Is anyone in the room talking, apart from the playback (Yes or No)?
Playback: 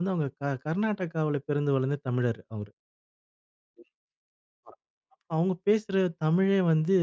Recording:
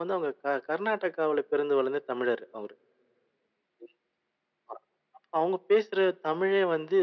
No